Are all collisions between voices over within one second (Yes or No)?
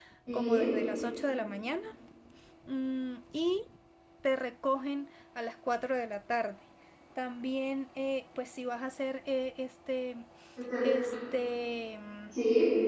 Yes